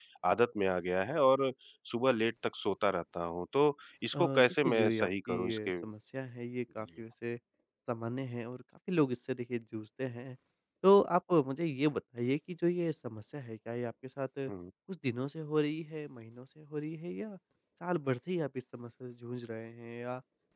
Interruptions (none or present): present